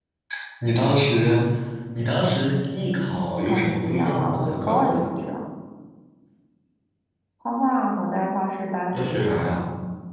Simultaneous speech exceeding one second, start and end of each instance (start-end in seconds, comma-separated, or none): 3.4-5.0